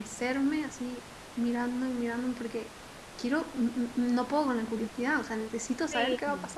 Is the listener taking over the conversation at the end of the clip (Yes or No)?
Yes